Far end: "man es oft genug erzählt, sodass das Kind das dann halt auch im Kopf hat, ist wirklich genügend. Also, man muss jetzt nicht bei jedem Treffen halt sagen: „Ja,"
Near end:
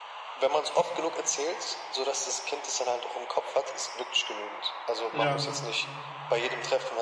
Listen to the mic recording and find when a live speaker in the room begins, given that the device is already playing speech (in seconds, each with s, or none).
5.1 s